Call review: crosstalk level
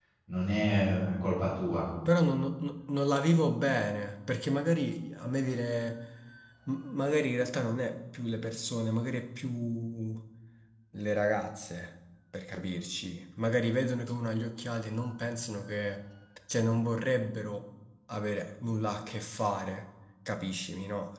none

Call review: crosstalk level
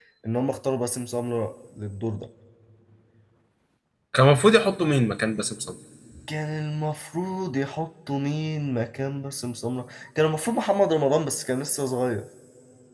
none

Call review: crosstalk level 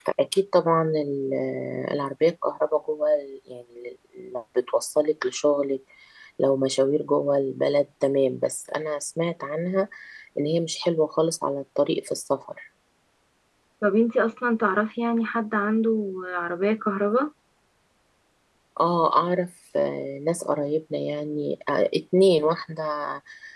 none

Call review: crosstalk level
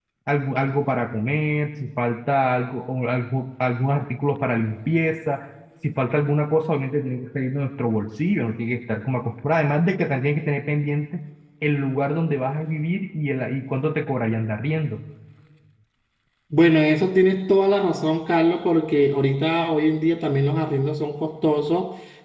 none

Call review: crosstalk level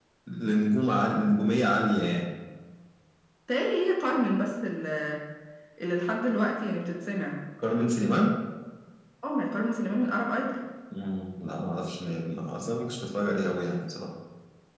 none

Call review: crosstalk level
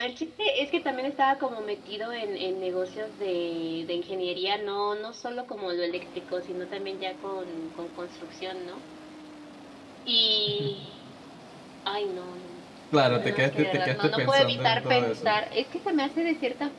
present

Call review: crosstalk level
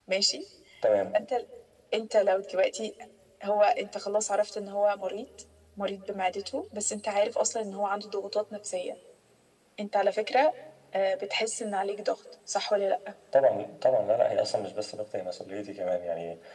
none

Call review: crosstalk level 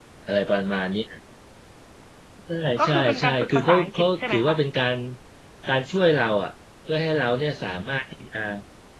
present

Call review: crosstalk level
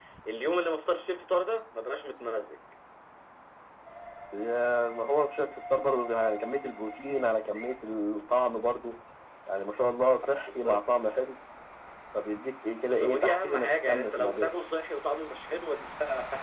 present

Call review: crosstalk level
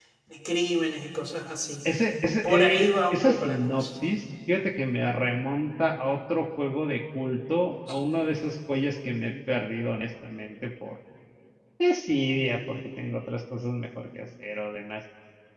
present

